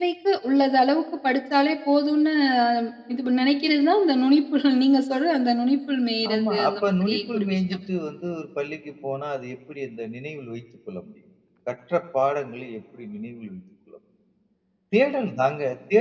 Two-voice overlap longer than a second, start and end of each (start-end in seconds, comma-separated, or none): 6.3-7.6